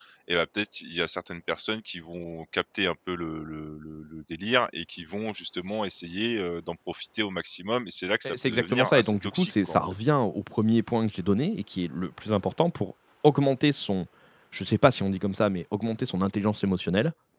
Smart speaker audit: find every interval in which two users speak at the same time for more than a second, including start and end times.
8.2-9.8

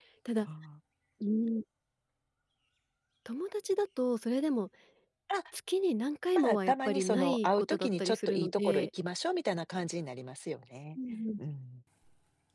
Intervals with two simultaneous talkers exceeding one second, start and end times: 6.3-8.9

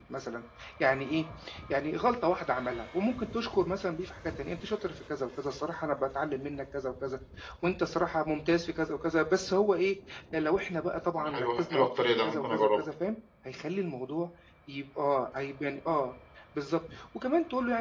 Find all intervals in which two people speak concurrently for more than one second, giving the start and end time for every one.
11.2-12.8

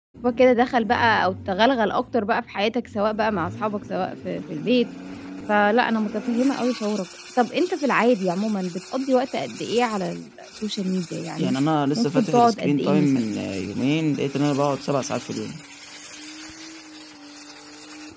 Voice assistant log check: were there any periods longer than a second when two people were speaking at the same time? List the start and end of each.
12.0-13.4

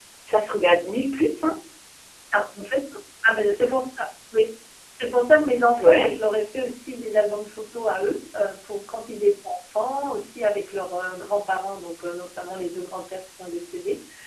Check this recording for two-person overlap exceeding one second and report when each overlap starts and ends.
none

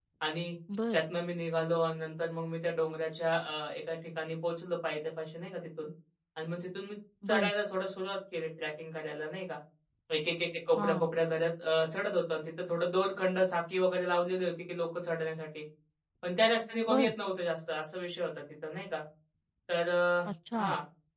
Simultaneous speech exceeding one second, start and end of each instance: none

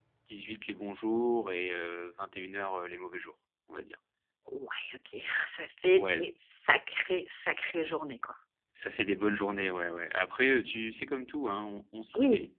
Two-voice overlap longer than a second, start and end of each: none

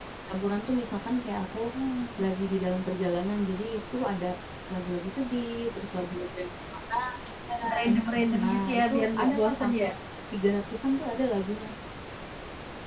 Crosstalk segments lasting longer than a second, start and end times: 7.8-9.9

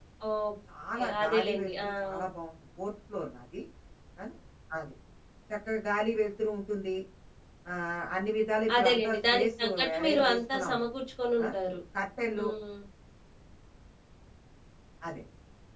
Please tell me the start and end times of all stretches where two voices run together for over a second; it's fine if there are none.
1.0-2.3, 8.8-10.8

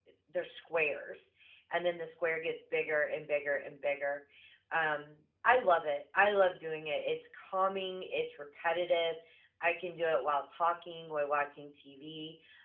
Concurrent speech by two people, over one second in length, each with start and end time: none

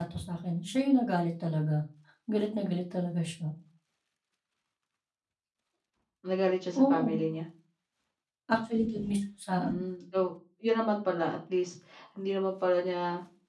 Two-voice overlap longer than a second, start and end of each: none

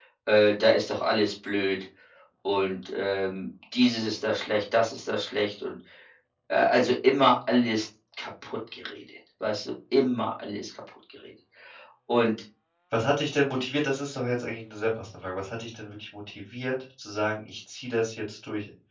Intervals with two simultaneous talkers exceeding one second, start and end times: none

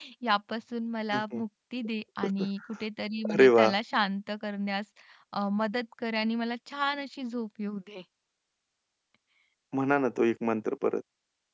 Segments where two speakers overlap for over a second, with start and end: none

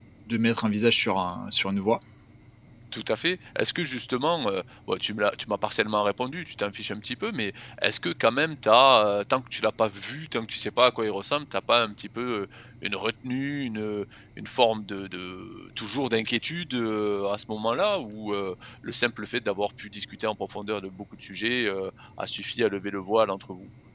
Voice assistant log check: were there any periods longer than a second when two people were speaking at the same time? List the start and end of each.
none

